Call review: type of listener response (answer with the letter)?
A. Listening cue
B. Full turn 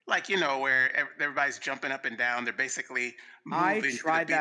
B